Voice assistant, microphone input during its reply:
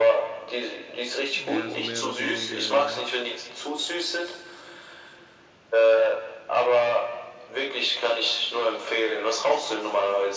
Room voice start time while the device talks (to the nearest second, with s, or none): 1 s